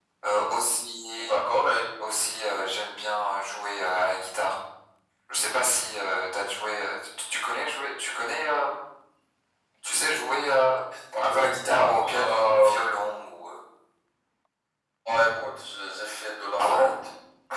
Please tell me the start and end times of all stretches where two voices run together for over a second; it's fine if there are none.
11.2-12.7

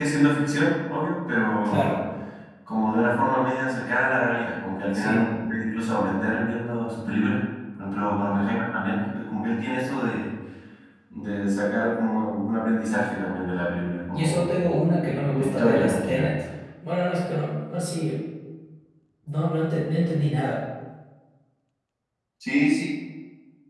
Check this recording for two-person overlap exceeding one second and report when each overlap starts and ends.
15.0-16.3

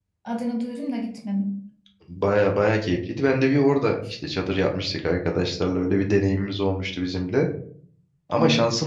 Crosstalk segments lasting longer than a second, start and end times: none

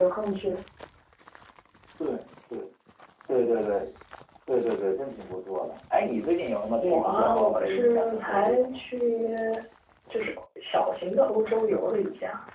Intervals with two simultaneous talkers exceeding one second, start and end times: 6.8-8.8

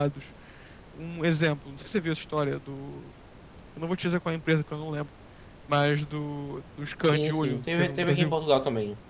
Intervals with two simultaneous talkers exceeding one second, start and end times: 7.1-8.3

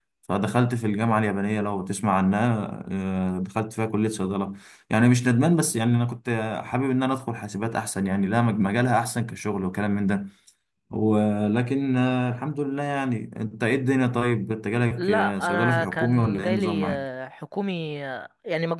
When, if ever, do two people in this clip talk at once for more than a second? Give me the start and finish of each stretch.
15.0-17.0

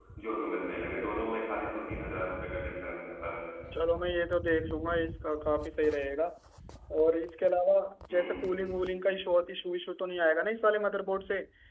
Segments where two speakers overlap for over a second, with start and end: none

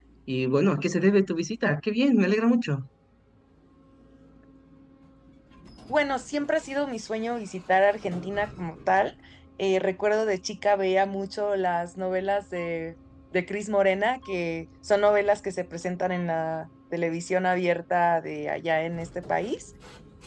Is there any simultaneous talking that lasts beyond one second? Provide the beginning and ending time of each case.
none

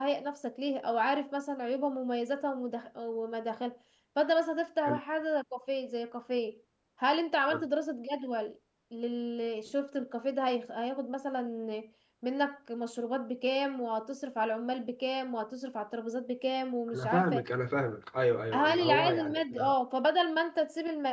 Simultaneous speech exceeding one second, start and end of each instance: 18.5-19.7

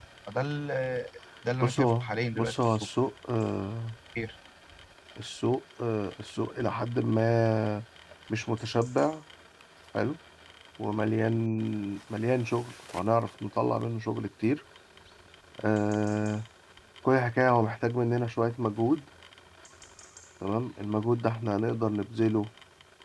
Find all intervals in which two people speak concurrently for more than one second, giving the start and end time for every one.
1.6-2.9

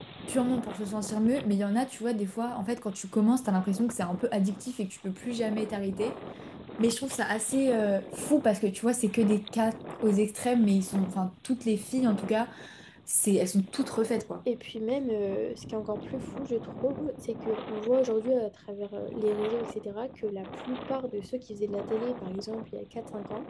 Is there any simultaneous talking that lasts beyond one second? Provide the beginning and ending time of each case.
none

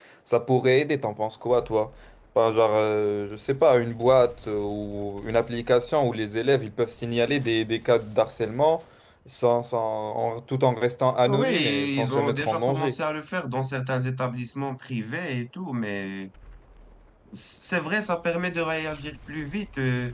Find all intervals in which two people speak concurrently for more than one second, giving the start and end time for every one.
11.3-12.9

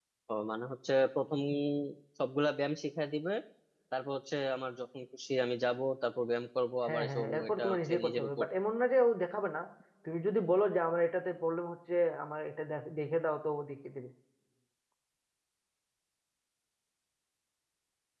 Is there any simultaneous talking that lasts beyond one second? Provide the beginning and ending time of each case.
6.9-8.4

